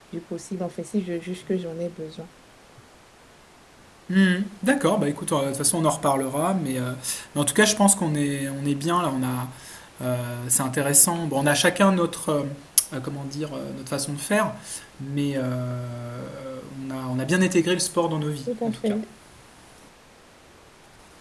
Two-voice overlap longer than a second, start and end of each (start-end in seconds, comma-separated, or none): none